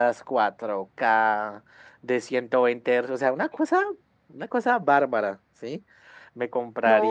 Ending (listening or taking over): taking over